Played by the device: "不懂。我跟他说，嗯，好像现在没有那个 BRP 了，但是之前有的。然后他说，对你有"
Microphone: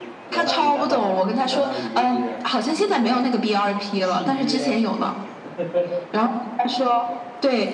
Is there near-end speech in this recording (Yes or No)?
Yes